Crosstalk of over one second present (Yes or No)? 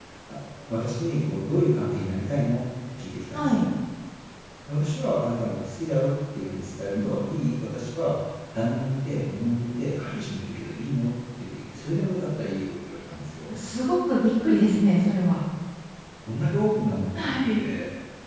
No